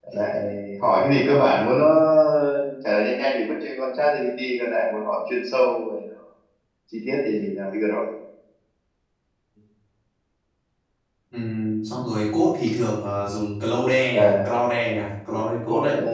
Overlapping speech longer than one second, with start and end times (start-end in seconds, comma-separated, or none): none